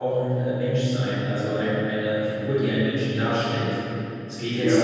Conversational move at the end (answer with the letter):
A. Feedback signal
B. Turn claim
A